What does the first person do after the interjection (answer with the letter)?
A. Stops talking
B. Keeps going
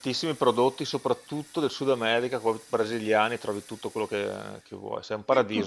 A